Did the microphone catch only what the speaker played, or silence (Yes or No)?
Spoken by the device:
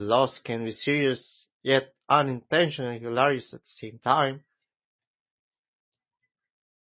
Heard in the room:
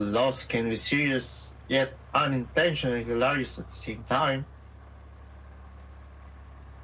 Yes